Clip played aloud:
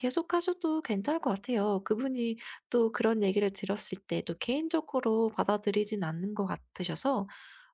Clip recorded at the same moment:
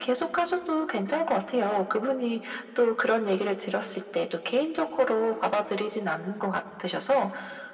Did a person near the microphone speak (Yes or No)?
No